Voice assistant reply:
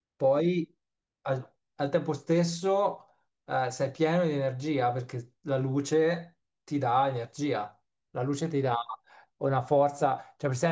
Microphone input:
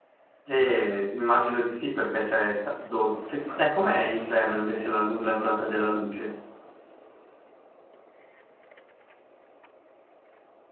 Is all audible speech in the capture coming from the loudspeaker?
No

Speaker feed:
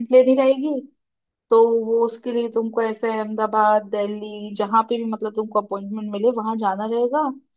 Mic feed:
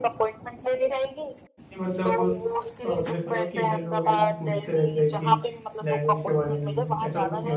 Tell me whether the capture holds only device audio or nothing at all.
No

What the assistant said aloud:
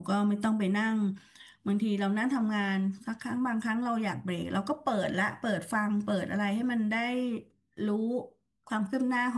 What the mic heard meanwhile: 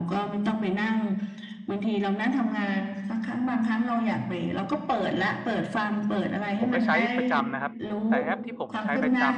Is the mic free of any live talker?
No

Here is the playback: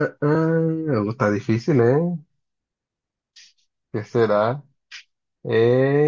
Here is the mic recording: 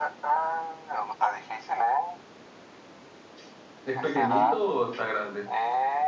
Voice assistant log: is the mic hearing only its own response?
No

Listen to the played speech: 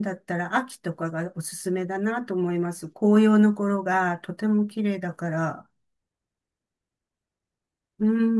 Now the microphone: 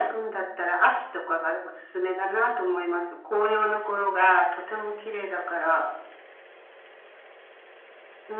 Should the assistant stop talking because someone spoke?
No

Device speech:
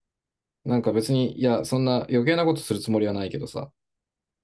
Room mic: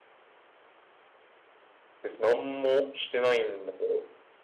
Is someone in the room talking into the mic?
Yes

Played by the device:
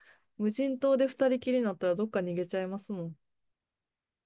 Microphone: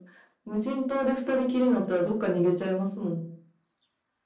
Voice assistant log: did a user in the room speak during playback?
No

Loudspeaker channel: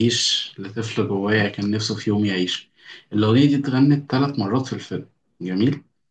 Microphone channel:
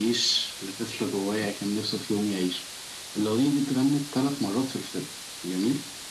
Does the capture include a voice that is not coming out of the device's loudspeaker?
No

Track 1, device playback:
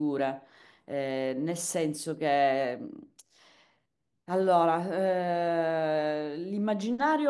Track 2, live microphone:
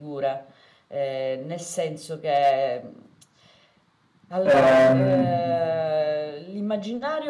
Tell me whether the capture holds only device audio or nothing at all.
No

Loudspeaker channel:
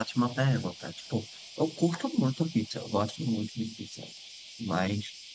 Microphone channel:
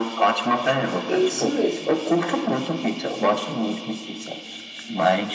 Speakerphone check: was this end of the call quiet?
No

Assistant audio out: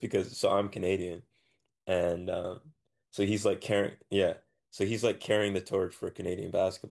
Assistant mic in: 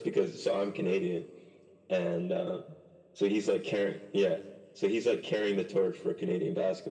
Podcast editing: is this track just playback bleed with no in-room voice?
Yes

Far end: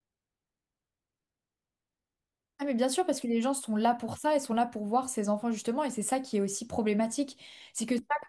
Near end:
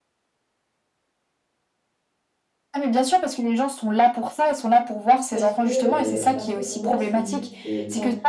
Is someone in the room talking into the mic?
Yes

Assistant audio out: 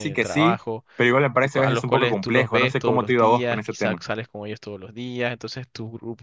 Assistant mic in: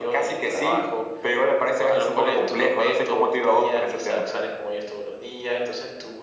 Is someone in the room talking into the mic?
No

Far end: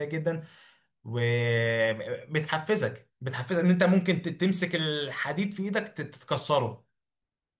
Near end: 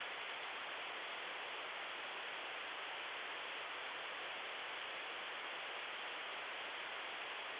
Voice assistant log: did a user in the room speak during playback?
No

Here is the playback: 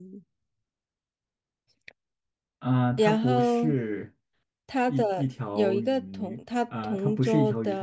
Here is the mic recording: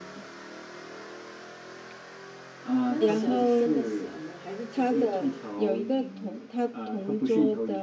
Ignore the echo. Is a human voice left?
Yes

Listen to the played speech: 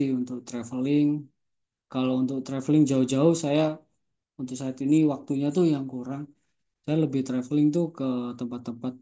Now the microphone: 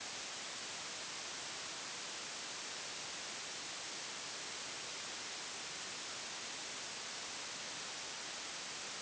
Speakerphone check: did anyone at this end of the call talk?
No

